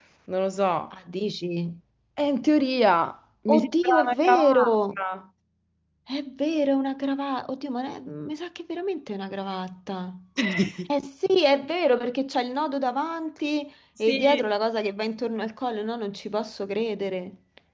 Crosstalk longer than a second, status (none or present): present